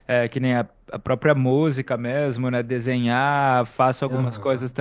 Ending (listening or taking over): listening